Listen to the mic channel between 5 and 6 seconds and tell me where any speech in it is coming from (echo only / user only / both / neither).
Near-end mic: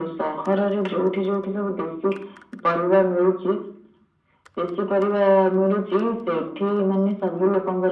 echo only